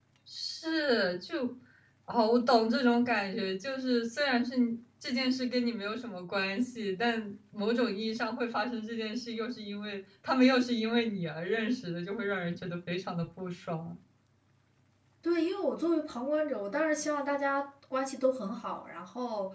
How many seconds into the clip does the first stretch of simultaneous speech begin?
none

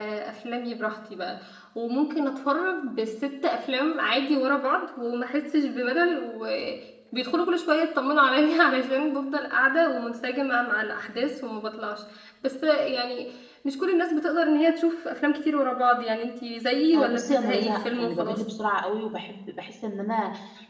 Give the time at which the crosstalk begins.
16.9 s

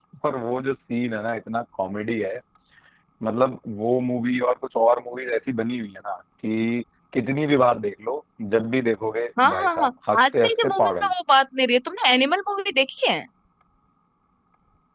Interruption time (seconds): 9.4 s

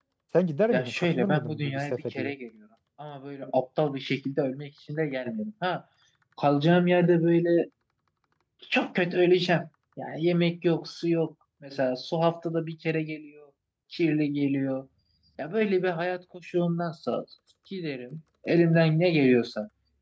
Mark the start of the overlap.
0.7 s

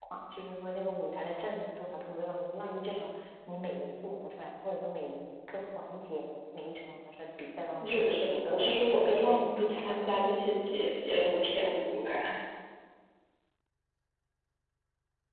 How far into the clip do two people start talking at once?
7.8 s

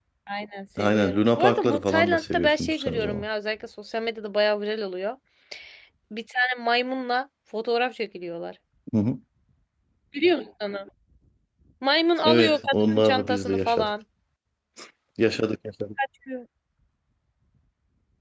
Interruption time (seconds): 0.8 s

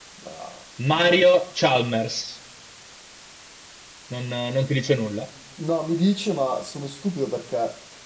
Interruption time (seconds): none

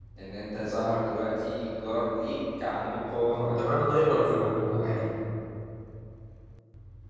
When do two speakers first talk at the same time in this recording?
3.3 s

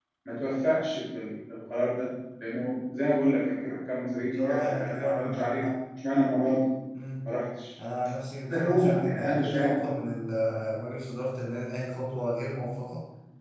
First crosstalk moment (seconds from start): 4.3 s

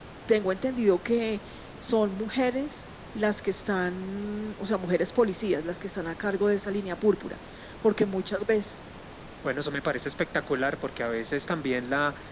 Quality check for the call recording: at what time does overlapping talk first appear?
none

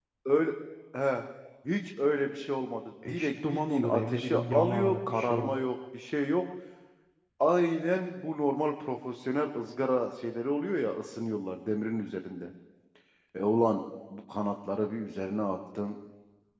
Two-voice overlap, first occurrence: 3.0 s

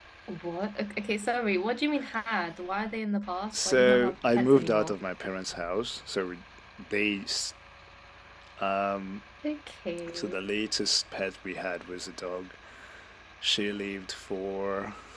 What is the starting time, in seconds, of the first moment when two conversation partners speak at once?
3.5 s

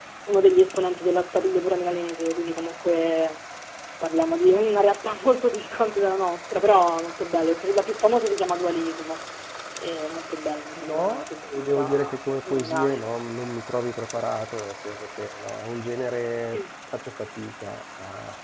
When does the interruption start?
10.8 s

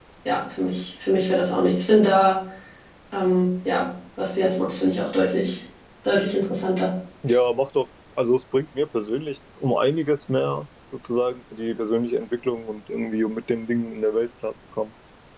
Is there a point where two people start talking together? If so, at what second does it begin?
none

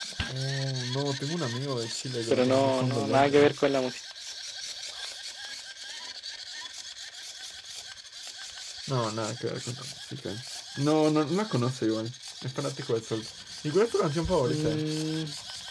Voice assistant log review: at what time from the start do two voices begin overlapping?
2.3 s

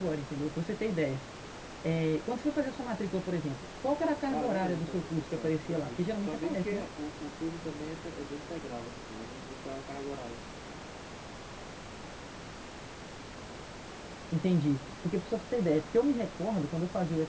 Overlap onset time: 4.3 s

